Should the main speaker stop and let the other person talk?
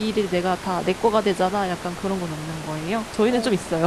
Yes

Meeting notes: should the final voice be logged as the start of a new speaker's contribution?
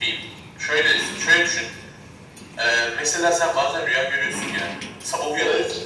No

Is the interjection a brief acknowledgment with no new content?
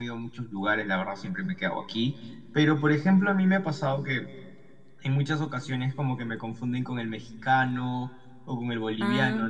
Yes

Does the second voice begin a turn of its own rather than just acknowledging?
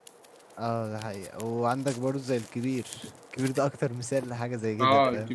Yes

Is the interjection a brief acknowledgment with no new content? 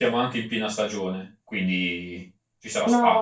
No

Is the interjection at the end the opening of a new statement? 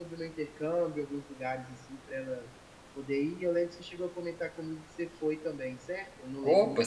Yes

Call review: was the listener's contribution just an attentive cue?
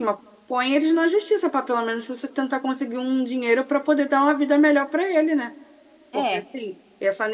Yes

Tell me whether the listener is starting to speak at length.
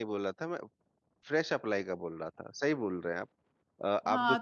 Yes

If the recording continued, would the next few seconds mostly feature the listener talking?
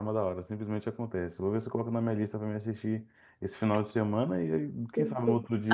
Yes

